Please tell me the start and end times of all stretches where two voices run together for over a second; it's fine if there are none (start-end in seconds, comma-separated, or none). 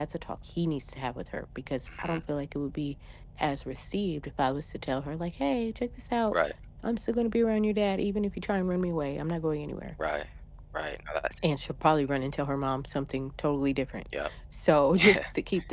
none